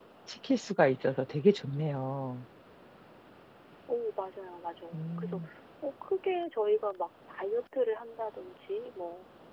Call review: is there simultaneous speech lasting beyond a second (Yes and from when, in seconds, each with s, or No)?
No